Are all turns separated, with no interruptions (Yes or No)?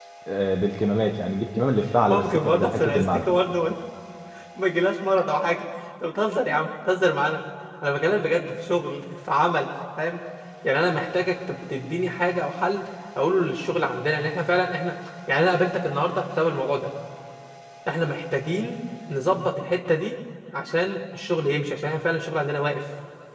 No